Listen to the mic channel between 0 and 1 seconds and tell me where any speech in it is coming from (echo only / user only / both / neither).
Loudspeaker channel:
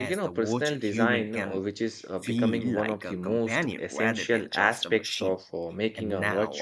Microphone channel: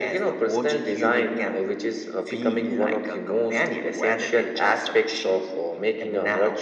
echo only